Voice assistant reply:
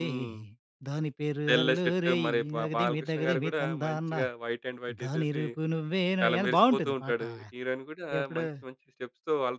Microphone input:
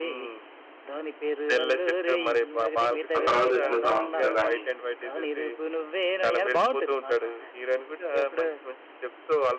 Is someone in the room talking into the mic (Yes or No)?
Yes